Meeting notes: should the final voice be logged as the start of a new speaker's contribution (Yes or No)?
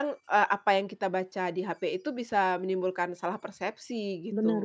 Yes